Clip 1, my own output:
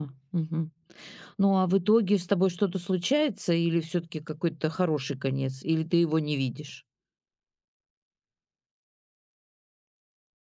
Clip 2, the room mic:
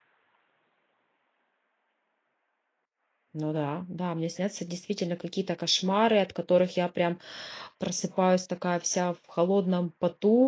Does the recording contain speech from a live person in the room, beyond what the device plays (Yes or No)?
Yes